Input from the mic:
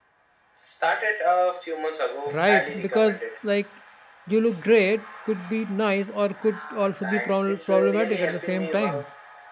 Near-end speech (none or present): present